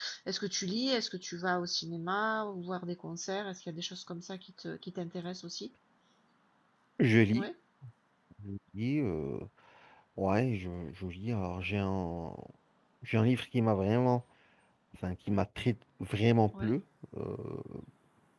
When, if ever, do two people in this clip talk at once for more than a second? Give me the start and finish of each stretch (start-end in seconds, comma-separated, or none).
none